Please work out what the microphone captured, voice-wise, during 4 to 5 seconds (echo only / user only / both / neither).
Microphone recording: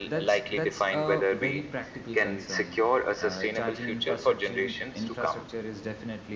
both